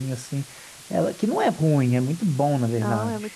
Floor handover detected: Yes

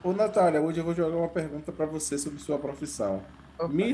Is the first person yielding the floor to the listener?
No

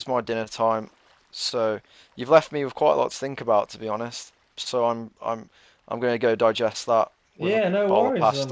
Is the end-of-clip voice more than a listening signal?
Yes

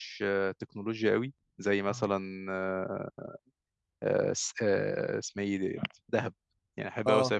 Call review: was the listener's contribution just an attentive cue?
Yes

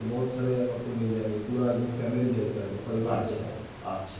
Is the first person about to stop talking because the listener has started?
Yes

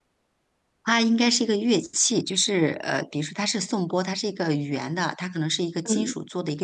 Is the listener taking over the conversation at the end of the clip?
No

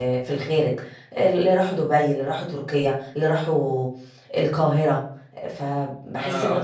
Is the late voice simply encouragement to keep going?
Yes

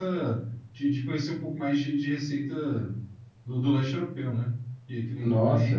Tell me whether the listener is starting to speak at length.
Yes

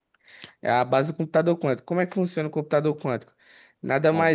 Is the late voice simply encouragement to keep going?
Yes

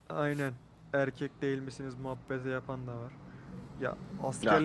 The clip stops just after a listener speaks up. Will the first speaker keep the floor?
No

